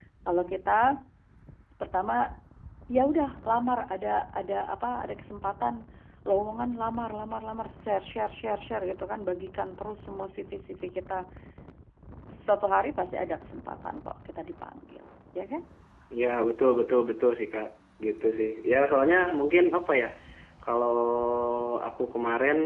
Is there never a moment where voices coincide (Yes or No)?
Yes